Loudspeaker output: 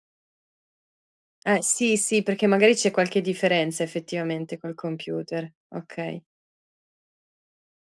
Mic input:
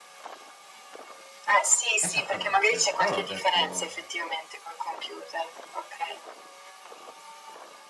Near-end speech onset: 2 s

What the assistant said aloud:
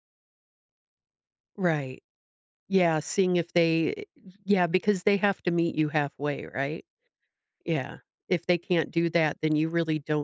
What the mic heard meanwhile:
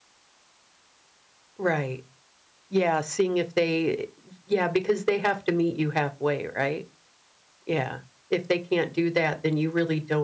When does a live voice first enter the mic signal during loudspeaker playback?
none

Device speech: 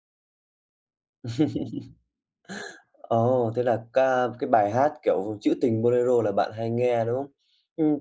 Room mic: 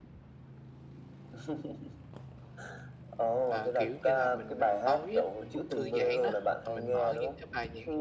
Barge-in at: 3 s

